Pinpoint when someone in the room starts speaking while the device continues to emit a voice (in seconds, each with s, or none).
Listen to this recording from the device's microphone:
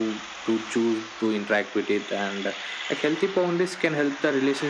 none